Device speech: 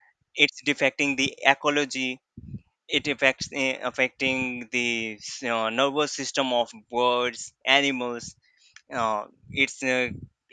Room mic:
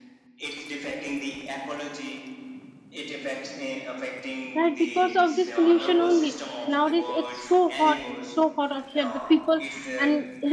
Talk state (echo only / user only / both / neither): both